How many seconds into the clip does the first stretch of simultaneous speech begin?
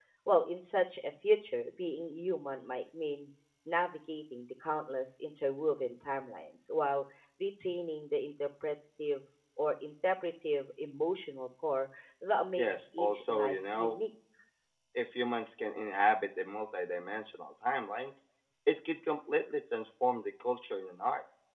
13 s

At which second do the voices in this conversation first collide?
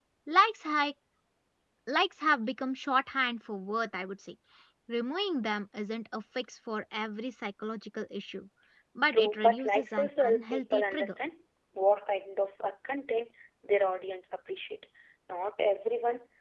9 s

